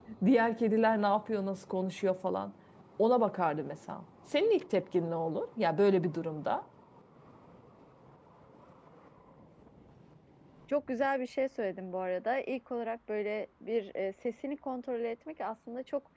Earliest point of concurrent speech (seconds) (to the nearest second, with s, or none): none